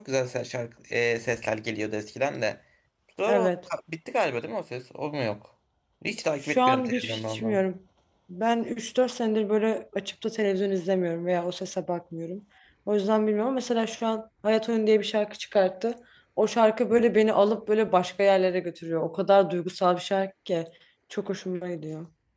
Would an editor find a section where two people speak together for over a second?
Yes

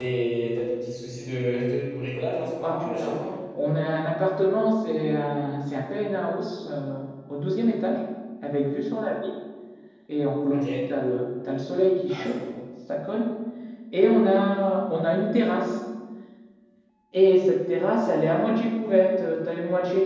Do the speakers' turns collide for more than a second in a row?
No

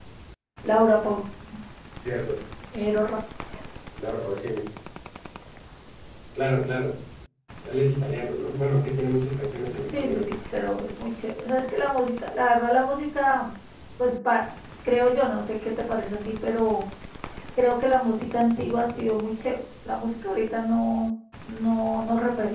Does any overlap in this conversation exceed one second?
No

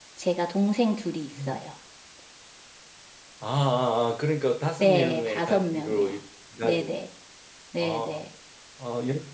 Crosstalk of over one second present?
Yes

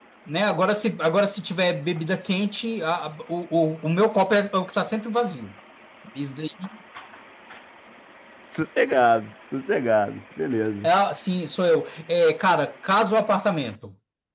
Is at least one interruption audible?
No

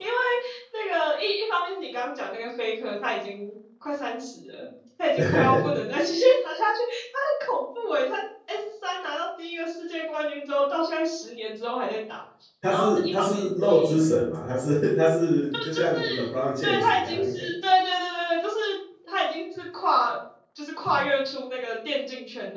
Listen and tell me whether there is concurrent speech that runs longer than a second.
Yes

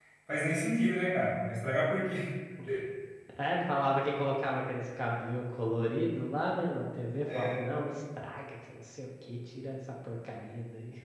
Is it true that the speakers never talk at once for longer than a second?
Yes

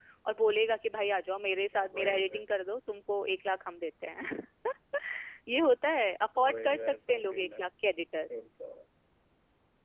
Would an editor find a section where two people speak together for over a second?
Yes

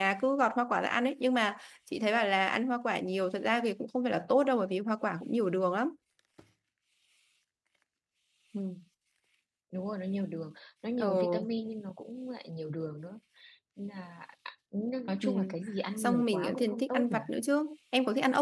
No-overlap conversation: No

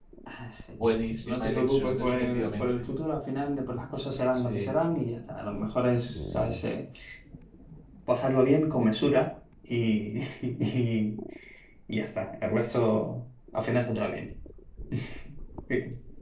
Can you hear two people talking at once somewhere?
Yes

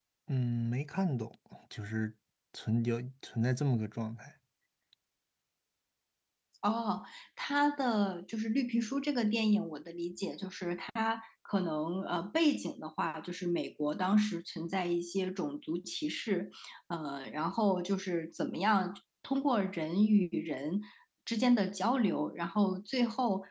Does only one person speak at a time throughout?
Yes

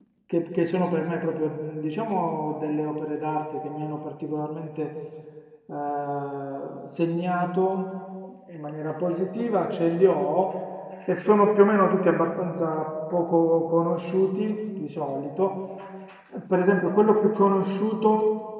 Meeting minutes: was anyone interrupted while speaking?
No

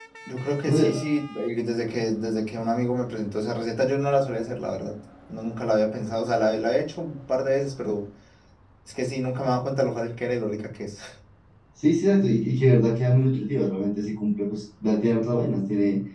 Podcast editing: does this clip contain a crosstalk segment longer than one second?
No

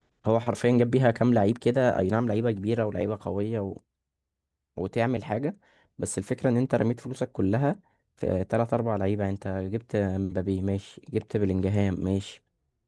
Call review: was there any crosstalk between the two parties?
No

